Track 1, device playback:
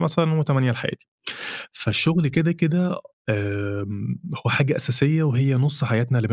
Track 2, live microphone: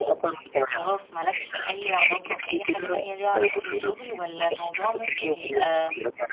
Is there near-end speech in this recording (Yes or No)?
Yes